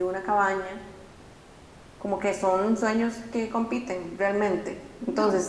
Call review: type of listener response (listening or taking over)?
listening